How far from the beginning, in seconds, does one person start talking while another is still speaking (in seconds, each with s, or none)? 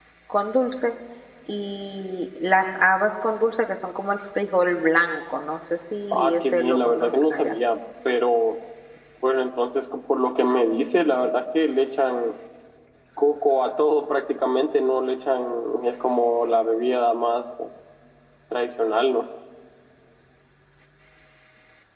6.1 s